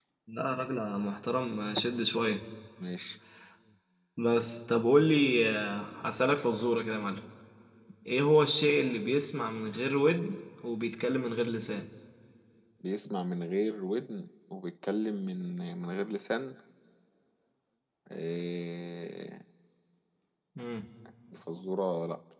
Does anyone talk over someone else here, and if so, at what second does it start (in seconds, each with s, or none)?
none